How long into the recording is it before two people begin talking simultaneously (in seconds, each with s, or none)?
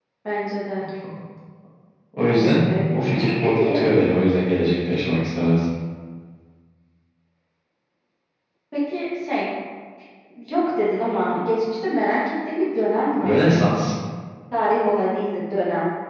2.3 s